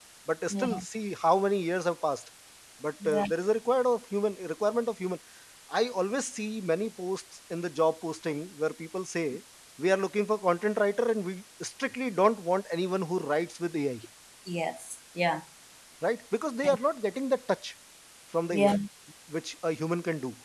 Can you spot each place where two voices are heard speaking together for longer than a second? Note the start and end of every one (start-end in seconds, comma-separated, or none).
none